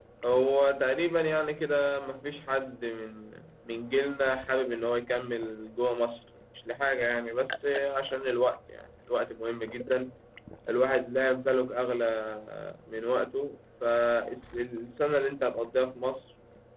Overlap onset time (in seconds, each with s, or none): none